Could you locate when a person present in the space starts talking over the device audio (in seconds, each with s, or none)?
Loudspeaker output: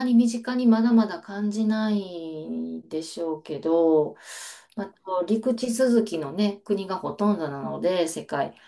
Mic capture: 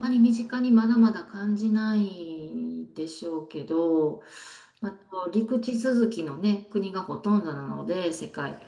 none